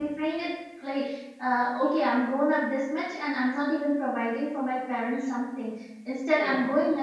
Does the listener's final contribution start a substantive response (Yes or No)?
No